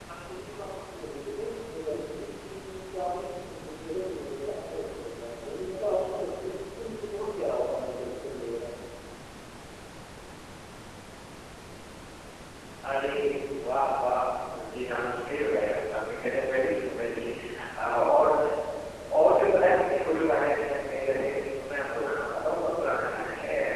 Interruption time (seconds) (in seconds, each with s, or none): none